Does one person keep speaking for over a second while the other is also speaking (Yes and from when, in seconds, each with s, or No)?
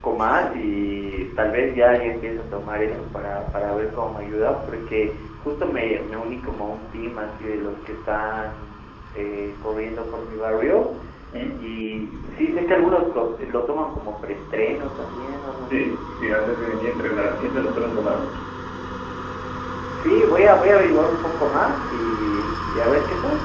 No